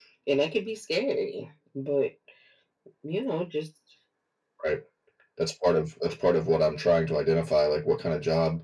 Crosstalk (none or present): none